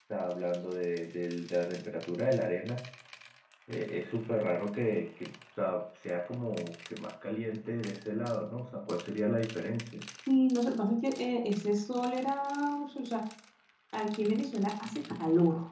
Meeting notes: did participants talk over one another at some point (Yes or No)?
No